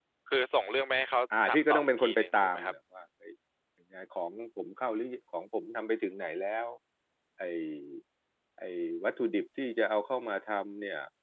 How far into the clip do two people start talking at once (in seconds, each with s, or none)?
1.3 s